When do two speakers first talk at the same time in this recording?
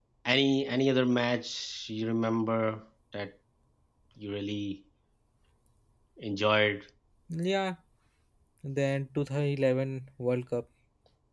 none

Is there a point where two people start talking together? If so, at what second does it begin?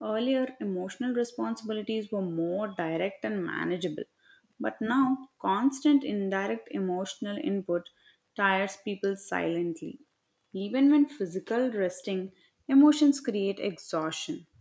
none

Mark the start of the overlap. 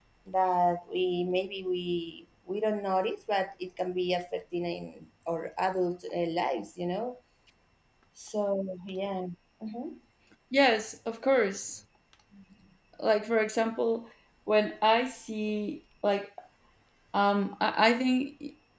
none

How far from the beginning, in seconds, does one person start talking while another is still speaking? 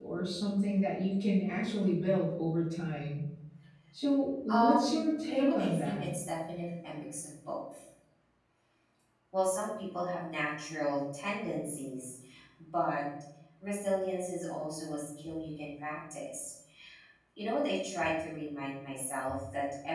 4.5 s

